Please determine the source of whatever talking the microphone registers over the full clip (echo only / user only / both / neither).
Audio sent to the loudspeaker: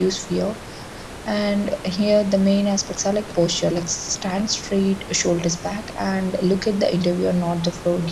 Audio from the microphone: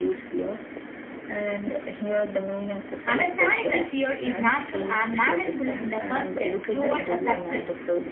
both